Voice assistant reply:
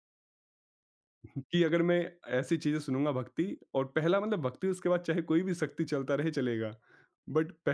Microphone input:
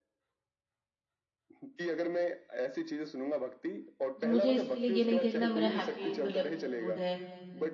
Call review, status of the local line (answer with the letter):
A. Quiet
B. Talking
B